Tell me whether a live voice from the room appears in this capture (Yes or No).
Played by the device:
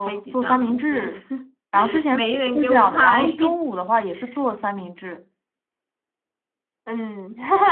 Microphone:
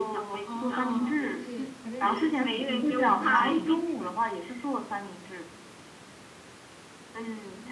Yes